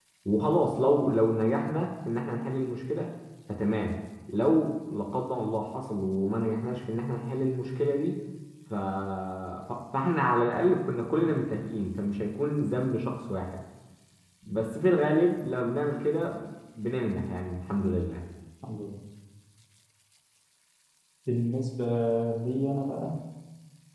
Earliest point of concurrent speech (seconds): none

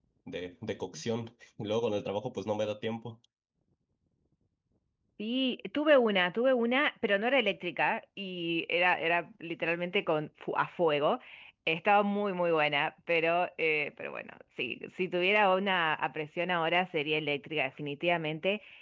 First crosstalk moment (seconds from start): none

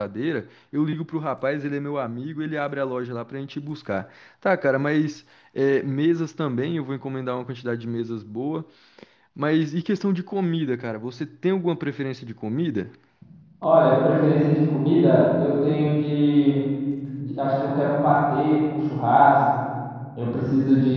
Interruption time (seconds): none

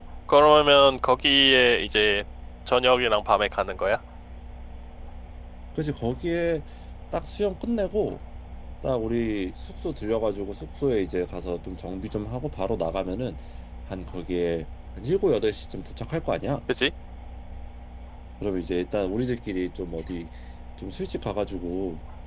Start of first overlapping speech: none

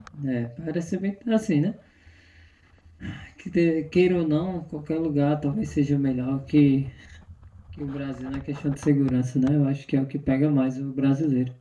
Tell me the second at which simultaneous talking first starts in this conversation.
none

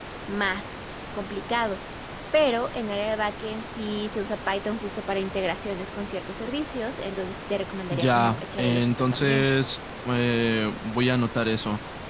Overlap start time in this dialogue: 7.9 s

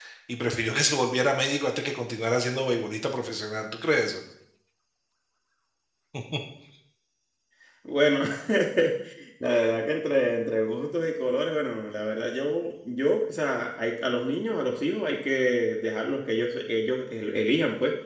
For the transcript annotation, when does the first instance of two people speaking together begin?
none

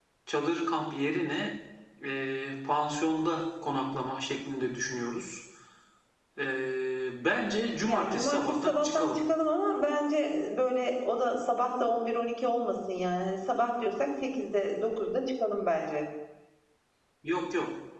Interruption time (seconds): 7.8 s

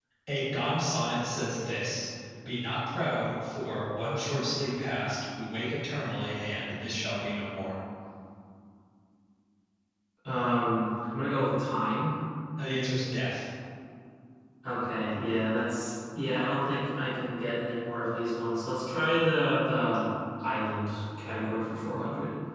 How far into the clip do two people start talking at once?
none

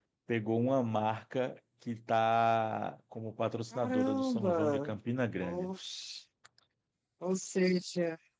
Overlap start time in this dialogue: 3.7 s

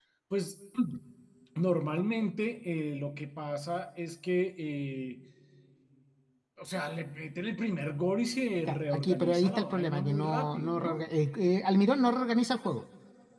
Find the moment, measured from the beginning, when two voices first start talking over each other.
8.7 s

